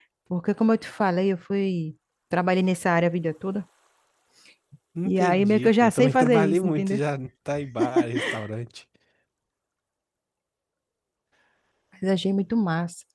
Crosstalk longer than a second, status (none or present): present